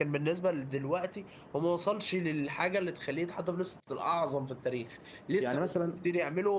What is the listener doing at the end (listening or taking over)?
listening